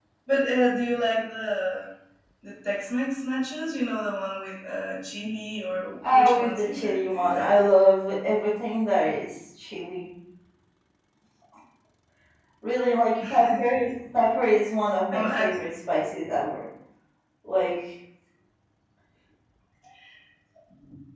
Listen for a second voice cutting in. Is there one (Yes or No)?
Yes